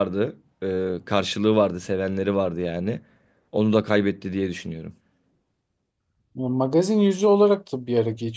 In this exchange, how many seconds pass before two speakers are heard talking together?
none

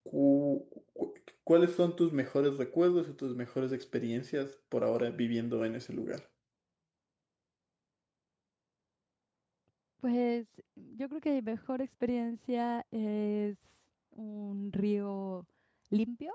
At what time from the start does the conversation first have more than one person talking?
none

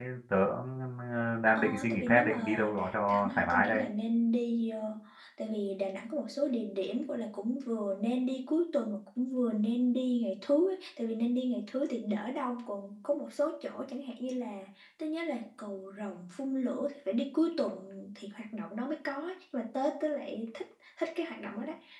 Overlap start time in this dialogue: 2 s

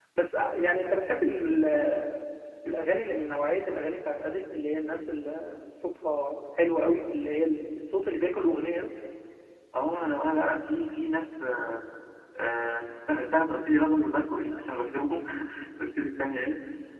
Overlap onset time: none

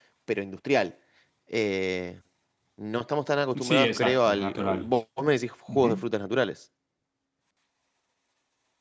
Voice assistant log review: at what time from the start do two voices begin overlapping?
4 s

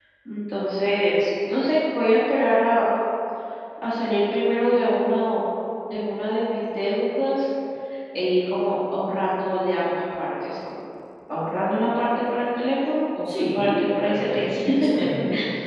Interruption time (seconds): 13 s

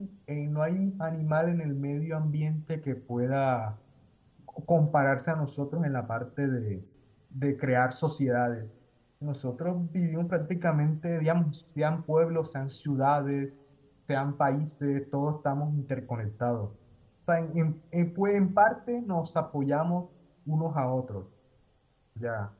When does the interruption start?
none

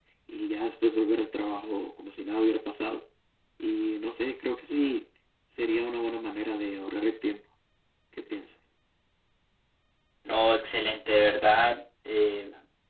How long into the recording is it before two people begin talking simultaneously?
none

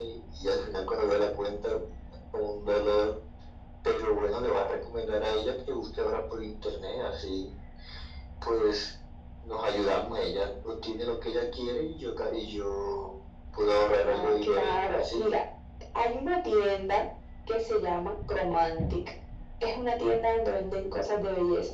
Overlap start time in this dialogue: 14 s

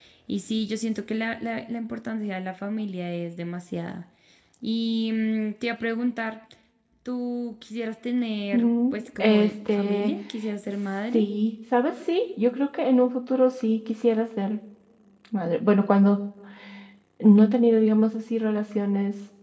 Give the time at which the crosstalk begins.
9 s

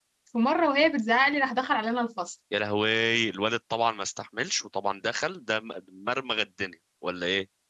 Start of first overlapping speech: none

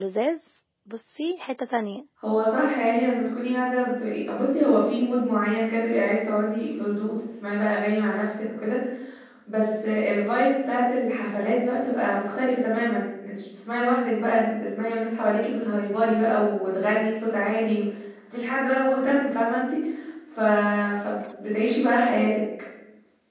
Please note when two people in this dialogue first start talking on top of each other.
none

